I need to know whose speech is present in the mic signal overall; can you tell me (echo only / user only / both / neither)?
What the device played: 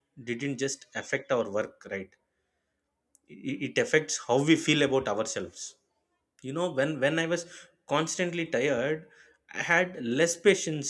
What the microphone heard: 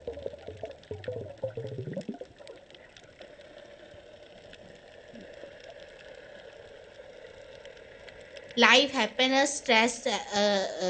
user only